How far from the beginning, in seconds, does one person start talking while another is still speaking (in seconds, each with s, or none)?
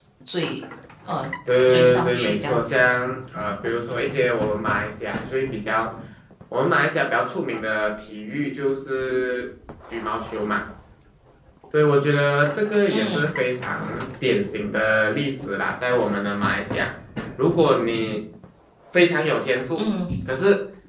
1.7 s